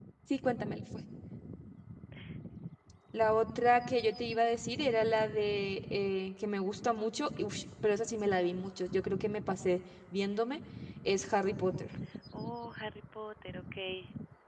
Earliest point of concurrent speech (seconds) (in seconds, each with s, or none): none